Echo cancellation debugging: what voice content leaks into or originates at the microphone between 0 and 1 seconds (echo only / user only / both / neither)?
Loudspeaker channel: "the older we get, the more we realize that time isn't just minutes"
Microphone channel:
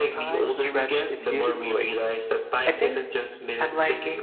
both